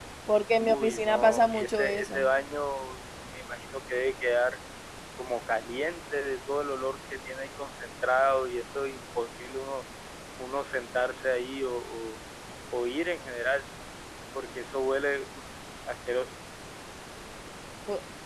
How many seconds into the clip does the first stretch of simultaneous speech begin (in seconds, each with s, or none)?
0.7 s